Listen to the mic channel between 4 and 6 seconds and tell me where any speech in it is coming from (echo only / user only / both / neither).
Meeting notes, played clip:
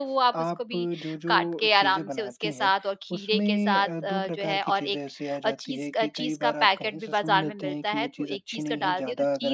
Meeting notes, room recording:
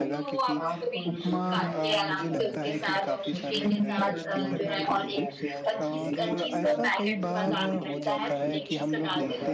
both